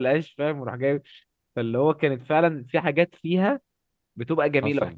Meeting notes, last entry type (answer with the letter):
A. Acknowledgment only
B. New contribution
A